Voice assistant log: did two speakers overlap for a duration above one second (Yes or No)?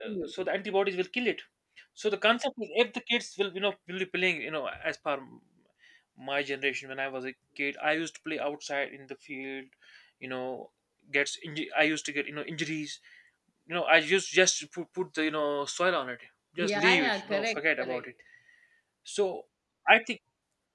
Yes